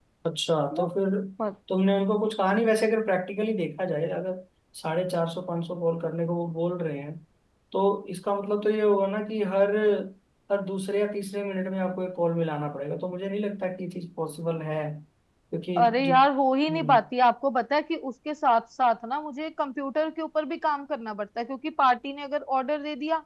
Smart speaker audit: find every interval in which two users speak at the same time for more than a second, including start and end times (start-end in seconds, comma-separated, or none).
none